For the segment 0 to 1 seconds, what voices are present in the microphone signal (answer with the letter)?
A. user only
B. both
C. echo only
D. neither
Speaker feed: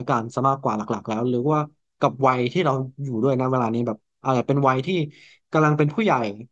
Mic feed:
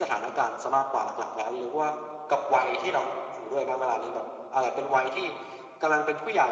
C